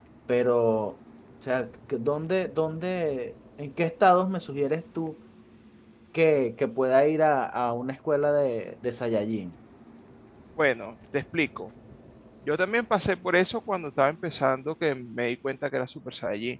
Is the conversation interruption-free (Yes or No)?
Yes